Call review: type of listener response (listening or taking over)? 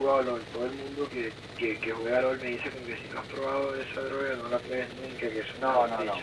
taking over